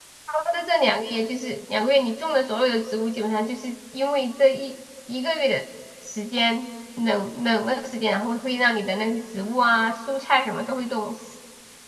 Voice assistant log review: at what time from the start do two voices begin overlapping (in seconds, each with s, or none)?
none